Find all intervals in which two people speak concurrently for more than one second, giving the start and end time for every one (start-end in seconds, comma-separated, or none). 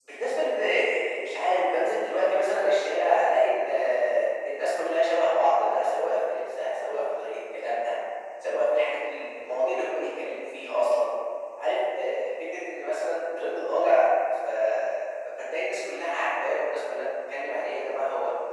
none